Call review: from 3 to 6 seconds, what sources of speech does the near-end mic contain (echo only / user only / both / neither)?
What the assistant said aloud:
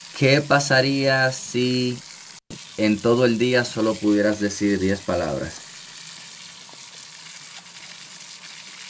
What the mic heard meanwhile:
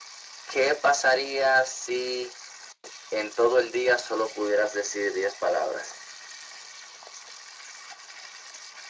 echo only